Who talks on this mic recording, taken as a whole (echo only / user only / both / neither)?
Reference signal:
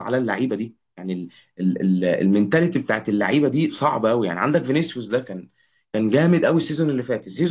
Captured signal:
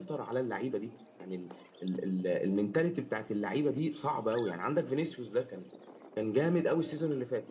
echo only